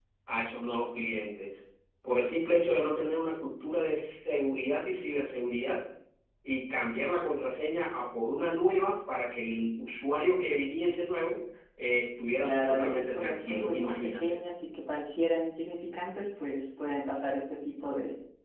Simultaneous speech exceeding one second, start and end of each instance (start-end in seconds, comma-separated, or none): 12.4-14.4